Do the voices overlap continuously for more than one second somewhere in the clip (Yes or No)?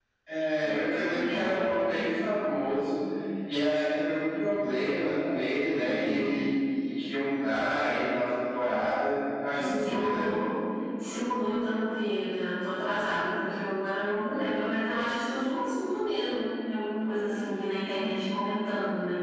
Yes